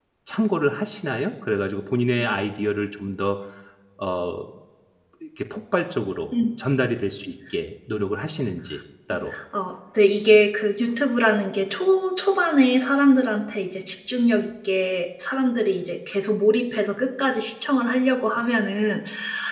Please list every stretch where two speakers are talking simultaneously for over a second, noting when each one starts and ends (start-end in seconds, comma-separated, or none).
none